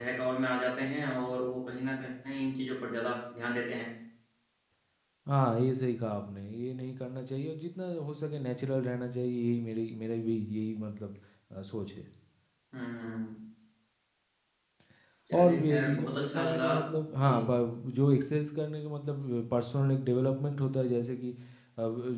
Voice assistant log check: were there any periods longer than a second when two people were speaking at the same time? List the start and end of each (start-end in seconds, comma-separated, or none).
15.4-16.7